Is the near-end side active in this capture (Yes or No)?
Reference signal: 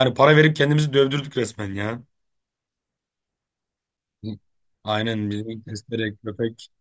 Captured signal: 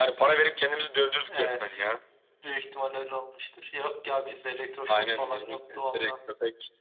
Yes